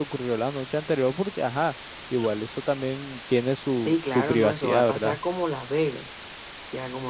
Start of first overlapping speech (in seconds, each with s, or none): 3.9 s